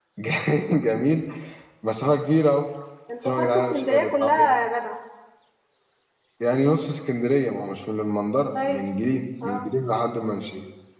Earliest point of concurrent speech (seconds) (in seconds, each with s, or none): 3.2 s